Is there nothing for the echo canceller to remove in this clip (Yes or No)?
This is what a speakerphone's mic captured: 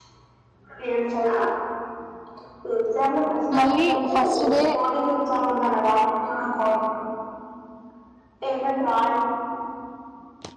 No